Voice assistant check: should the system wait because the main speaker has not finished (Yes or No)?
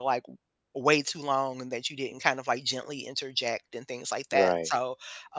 Yes